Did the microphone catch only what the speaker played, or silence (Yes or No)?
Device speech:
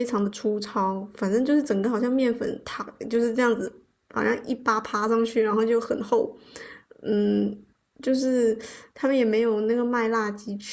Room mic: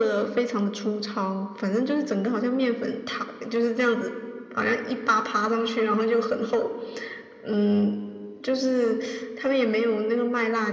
Yes